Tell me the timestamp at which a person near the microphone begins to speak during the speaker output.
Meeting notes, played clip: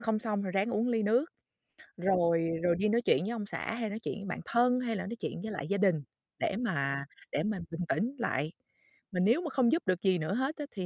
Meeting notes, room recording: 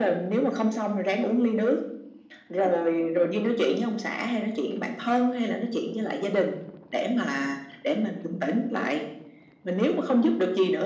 none

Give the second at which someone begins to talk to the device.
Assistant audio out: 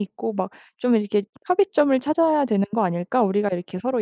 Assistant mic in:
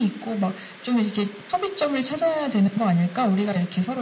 none

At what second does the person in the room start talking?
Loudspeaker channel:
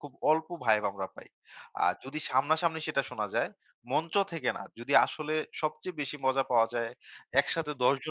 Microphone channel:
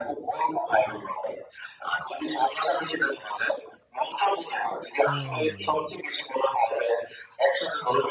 5.1 s

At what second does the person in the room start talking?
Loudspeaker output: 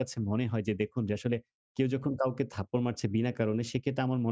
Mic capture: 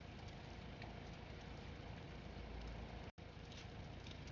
none

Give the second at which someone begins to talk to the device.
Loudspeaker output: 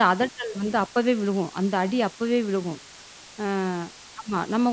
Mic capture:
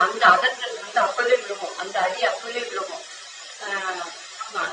none

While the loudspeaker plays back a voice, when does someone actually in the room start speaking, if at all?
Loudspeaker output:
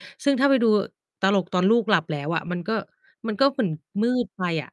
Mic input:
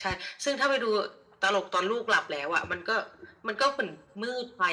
none

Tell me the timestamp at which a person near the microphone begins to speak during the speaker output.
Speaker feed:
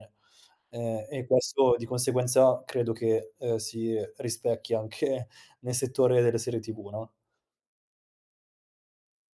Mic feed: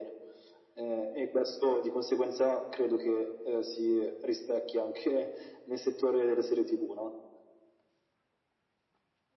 none

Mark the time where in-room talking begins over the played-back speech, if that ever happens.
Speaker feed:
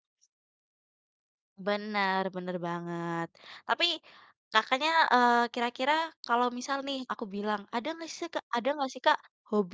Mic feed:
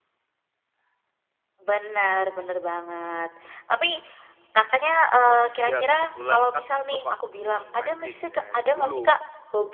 5.2 s

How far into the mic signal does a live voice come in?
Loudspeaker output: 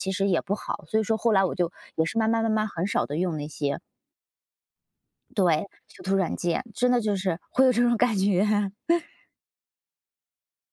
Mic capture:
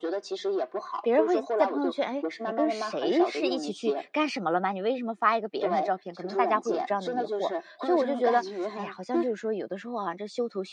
1.0 s

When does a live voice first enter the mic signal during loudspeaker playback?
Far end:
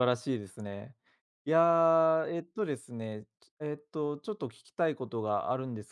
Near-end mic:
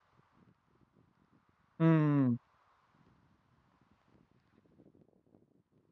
1.8 s

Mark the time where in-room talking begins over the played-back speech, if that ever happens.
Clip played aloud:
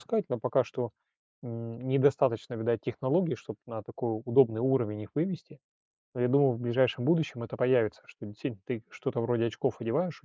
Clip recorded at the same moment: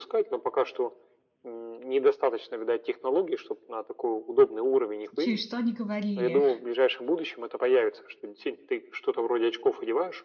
5.2 s

